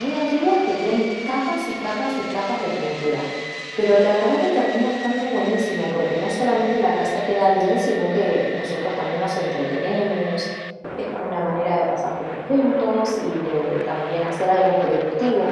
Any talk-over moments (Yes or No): No